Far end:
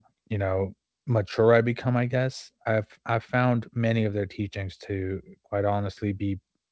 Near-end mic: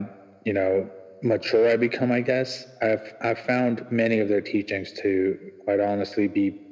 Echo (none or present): present